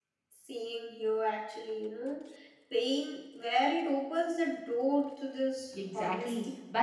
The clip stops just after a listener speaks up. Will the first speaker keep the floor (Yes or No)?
No